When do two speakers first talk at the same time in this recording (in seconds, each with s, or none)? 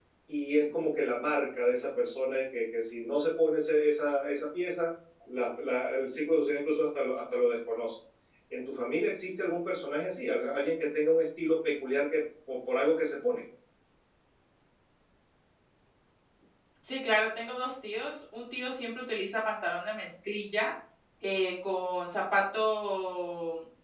none